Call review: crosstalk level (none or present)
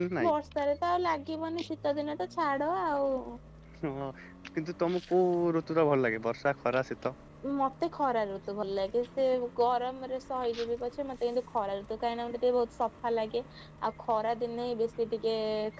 none